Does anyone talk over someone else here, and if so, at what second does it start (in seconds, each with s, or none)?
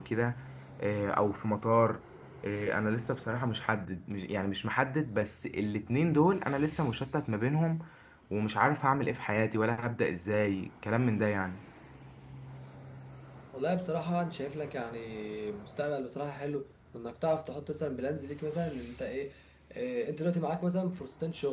none